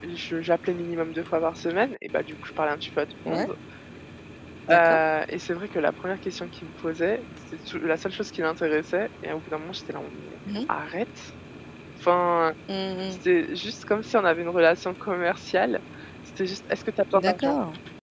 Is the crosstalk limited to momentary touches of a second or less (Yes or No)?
Yes